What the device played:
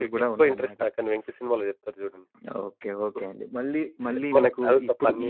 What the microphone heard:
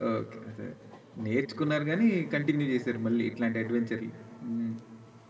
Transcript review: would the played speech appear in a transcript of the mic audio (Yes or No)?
No